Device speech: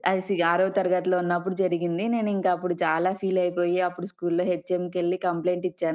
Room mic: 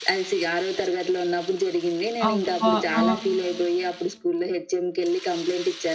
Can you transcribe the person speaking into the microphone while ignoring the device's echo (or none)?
అబ్బా! ఆ!